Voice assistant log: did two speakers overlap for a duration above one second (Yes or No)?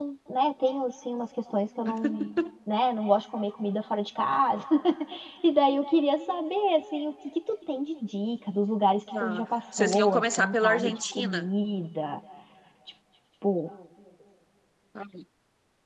Yes